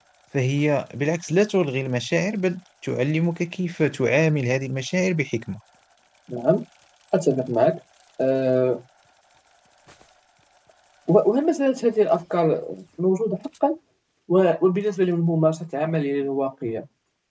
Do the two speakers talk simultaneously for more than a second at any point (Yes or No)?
No